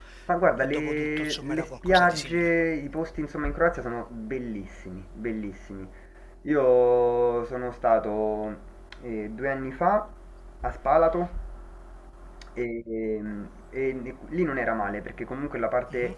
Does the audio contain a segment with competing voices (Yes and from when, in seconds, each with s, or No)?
Yes, from 0.6 s